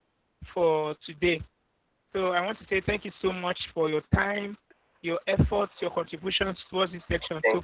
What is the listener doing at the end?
taking over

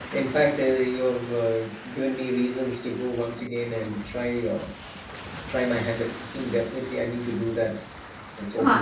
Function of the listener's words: taking over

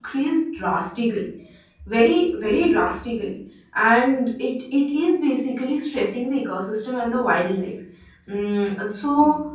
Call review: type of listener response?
taking over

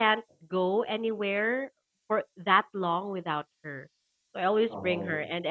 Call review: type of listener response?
listening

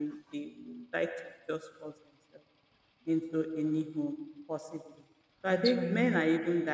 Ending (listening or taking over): listening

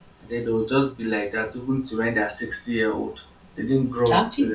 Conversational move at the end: taking over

